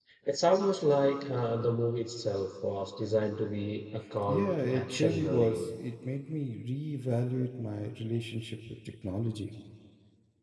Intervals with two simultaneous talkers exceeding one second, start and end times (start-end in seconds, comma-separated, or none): 4.3-5.7